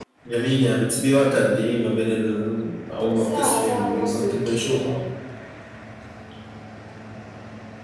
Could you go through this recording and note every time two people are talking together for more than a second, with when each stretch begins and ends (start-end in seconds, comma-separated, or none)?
3.2-4.9